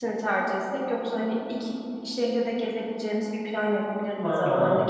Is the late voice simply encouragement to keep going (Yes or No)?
Yes